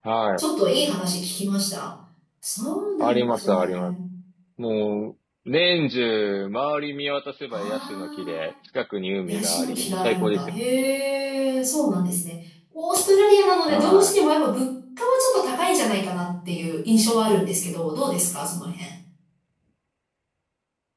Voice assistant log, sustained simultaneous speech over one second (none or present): present